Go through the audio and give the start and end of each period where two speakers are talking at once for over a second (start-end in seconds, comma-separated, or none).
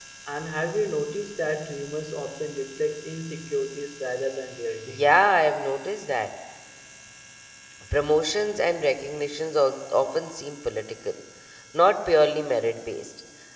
none